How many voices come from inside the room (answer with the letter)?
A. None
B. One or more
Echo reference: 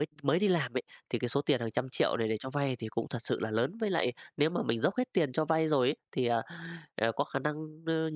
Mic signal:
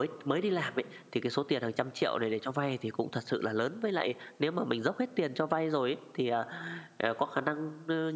A